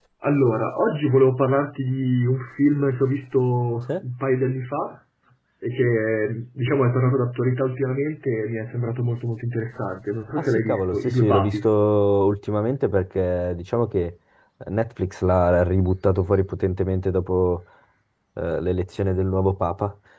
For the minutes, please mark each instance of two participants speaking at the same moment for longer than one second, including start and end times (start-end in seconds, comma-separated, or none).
10.4-11.7